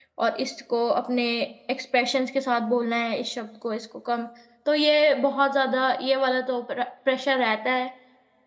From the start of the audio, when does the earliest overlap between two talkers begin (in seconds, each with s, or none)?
none